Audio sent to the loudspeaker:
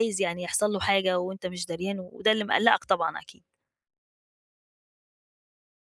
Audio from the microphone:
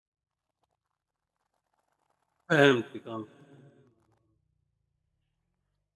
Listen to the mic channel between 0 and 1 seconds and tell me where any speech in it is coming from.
neither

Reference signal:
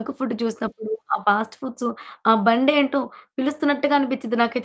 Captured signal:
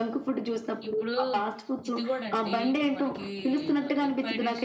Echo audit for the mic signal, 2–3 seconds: both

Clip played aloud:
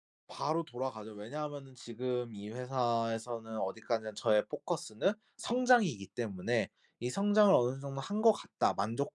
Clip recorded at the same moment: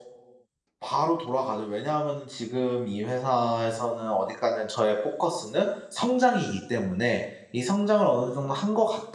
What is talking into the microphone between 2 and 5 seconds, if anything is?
echo only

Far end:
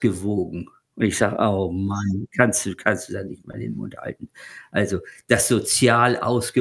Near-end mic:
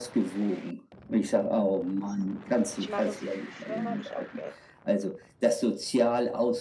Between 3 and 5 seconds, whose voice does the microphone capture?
both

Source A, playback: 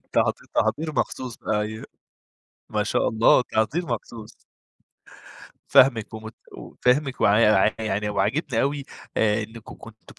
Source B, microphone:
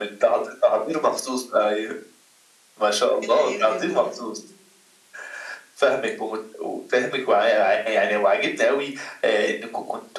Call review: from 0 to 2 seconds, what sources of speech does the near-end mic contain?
echo only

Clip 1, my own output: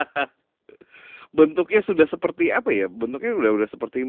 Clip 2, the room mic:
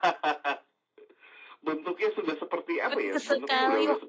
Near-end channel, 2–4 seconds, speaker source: both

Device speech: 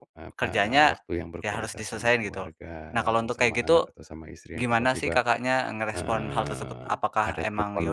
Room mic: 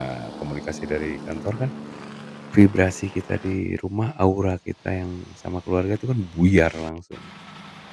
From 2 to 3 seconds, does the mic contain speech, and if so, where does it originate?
user only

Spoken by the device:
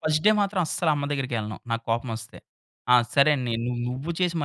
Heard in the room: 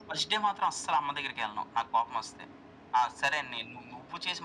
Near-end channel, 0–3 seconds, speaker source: echo only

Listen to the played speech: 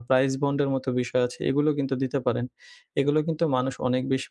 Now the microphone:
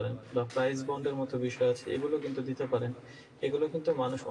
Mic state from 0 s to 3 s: echo only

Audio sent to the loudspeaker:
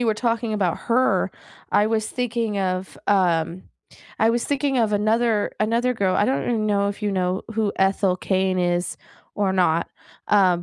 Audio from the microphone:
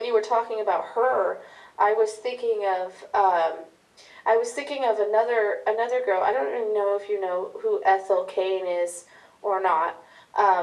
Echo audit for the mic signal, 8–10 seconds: echo only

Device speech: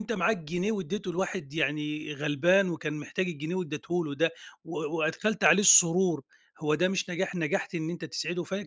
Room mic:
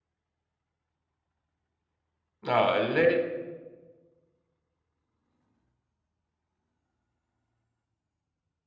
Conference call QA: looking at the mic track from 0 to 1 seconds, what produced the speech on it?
neither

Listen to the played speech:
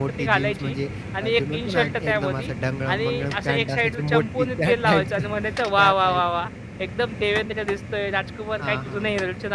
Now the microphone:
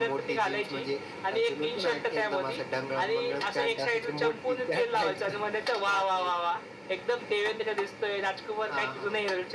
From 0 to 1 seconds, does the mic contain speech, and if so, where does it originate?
echo only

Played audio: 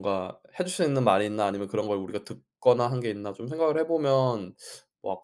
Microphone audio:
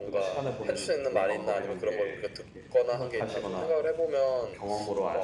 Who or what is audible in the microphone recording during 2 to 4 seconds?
both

